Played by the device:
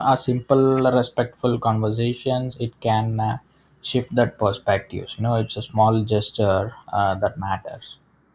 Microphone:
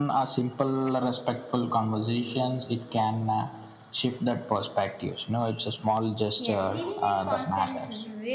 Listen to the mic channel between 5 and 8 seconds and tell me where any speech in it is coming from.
both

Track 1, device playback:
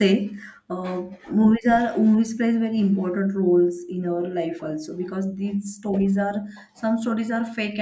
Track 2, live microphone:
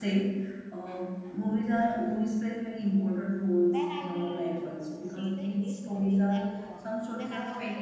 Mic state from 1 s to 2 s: echo only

